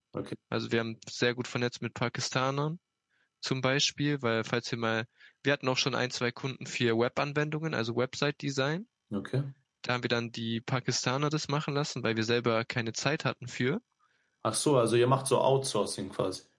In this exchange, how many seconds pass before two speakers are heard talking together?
none

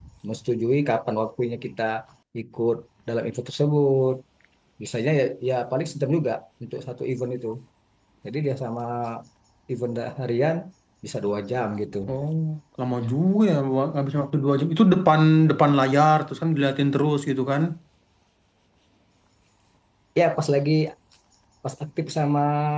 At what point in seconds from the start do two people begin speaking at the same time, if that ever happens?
none

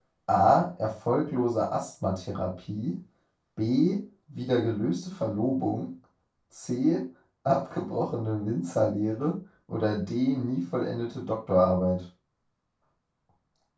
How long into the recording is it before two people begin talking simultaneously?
none

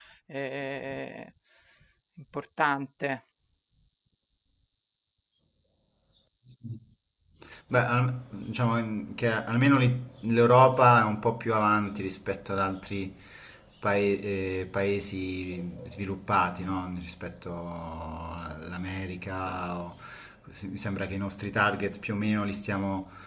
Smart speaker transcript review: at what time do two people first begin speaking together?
none

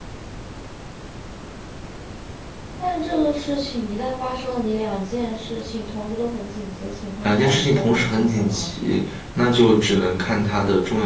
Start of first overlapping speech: 7.2 s

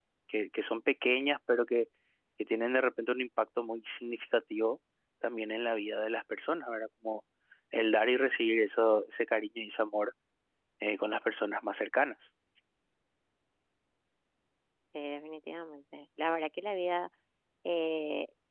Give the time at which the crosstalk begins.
none

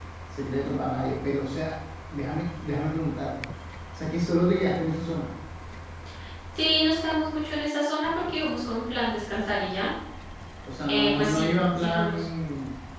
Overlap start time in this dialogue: 10.9 s

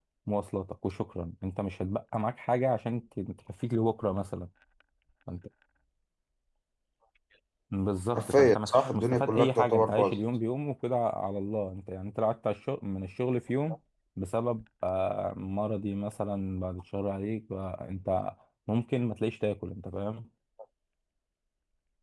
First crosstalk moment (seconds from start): 8.1 s

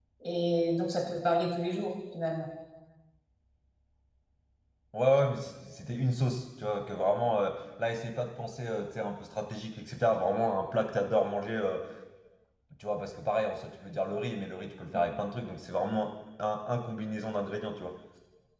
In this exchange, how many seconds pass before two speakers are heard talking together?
none

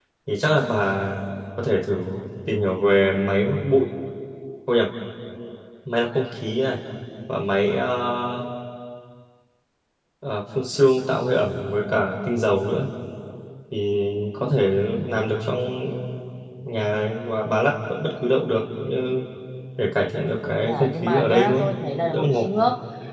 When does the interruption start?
20.4 s

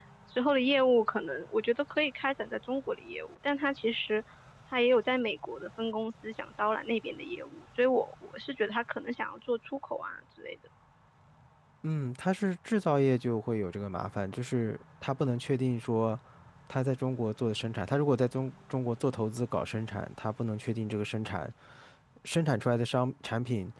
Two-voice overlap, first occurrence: none

